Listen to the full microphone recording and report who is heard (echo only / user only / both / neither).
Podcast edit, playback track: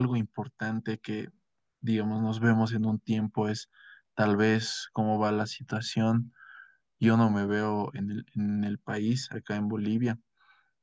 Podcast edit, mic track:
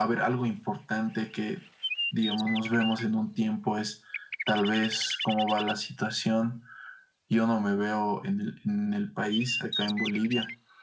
echo only